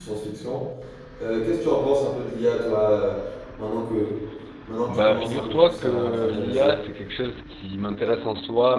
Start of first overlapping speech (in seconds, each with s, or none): 4.9 s